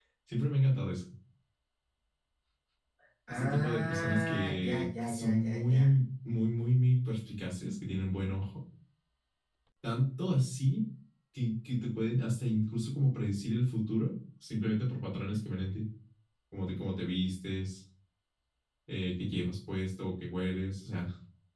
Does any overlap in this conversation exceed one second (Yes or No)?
Yes